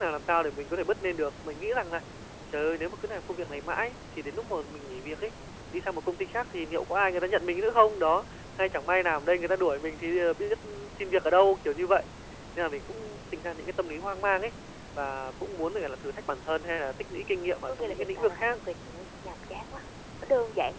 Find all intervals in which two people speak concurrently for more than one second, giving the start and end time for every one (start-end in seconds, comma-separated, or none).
17.1-18.6